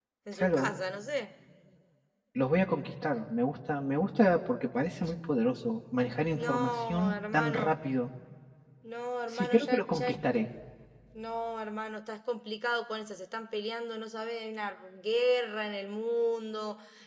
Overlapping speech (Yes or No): Yes